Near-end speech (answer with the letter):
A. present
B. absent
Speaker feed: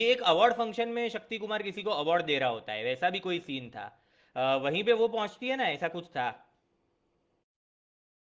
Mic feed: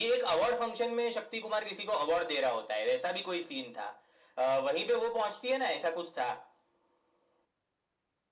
B